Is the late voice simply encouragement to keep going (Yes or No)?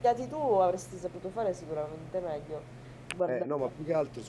No